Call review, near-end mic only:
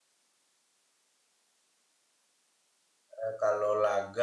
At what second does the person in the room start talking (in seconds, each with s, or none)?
3.2 s